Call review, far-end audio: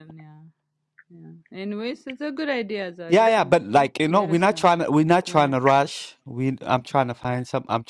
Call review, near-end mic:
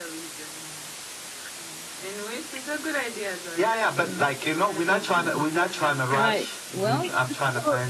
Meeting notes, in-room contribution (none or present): present